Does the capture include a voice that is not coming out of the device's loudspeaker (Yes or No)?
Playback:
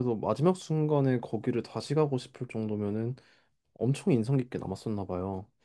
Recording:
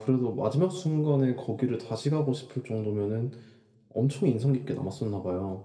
No